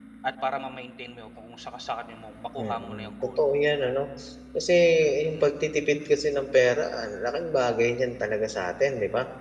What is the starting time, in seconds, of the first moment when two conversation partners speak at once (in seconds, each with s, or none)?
2.6 s